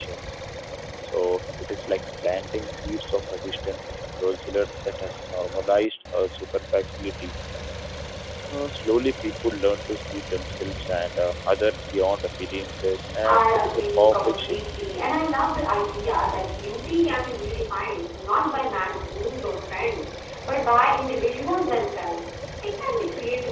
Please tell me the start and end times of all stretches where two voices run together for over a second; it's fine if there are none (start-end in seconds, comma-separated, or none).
13.2-14.6